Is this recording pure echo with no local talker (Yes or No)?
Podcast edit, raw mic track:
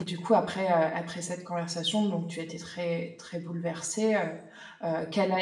No